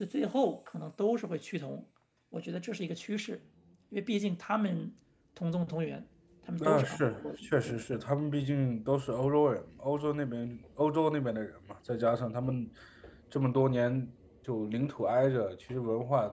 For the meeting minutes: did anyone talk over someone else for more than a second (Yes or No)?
Yes